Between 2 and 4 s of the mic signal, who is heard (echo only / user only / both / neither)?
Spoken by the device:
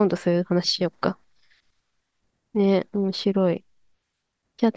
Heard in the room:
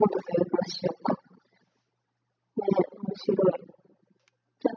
echo only